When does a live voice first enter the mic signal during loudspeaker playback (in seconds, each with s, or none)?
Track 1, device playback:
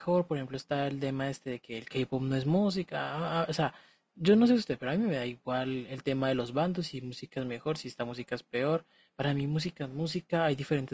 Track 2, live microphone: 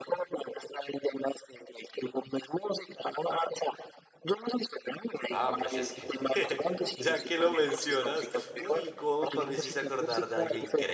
5.3 s